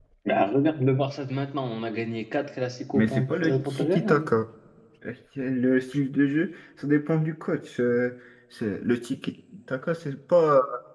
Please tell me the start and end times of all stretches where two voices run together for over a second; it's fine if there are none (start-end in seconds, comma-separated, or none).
2.9-4.3